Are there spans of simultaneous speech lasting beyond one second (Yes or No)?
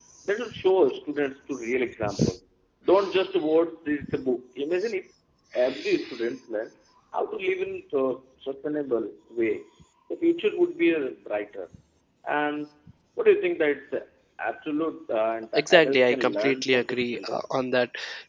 Yes